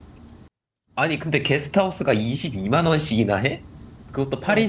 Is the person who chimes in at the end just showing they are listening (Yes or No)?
No